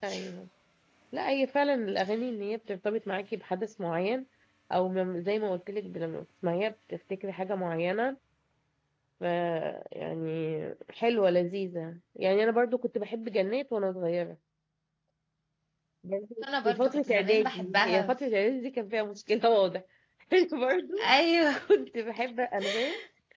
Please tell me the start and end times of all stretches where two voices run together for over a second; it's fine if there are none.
16.6-18.1

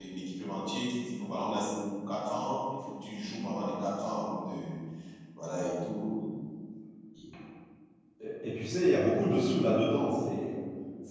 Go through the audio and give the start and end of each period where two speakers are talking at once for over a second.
none

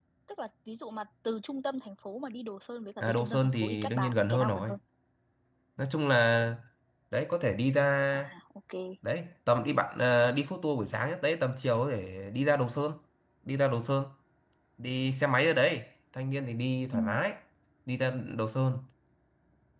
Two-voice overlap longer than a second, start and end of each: 3.0-4.7

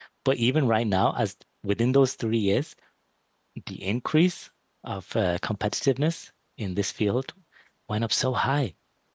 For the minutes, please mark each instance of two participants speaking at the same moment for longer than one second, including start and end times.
none

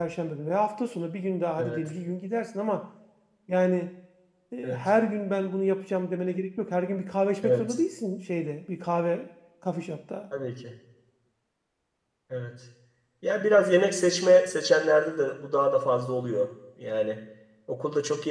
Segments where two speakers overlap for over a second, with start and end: none

